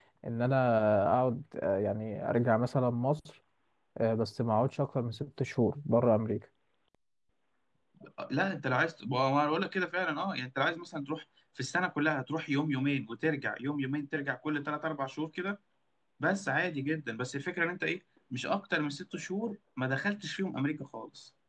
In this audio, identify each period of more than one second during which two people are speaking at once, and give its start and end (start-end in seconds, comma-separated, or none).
none